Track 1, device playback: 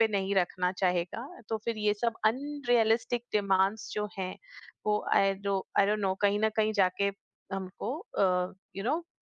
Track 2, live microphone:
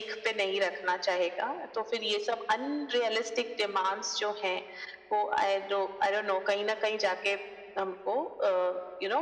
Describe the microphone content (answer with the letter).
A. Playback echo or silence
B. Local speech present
A